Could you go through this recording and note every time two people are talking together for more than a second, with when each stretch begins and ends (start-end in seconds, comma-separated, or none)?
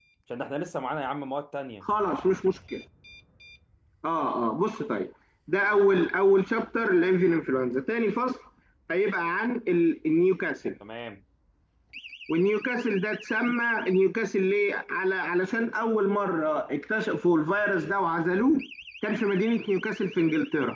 none